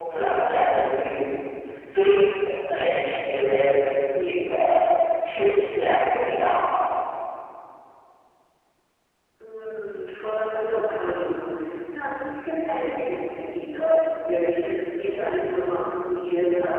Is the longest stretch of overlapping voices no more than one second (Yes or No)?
Yes